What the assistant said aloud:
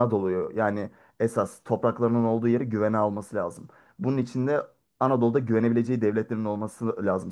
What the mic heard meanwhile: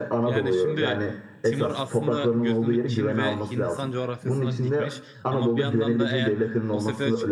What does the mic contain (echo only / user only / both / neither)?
both